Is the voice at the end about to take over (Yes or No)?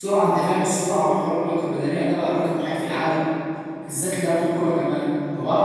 No